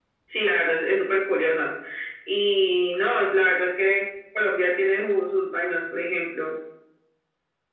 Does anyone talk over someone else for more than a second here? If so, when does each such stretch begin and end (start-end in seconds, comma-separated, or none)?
none